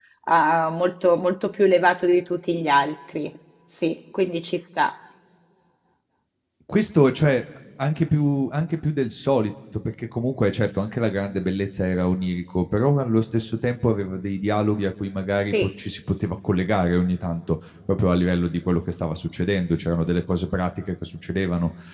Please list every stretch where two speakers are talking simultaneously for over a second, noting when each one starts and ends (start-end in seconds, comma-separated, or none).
none